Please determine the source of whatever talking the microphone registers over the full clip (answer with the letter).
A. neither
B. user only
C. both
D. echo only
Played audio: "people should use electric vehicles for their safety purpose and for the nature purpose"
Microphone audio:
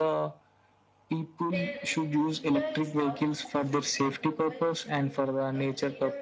C